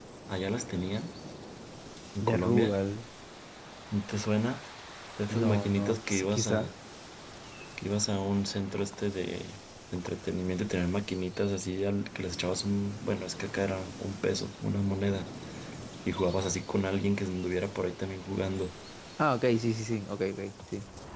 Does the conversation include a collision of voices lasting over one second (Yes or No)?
Yes